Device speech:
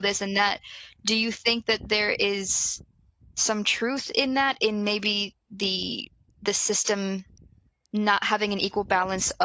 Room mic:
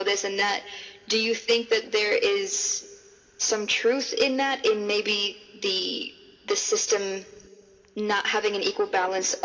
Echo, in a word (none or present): present